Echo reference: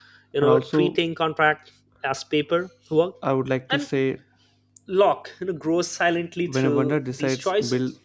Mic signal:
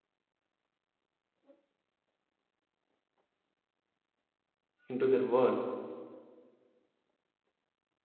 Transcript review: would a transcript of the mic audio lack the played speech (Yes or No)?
Yes